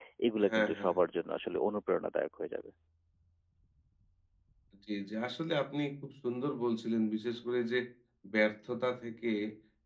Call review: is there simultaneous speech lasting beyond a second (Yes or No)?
No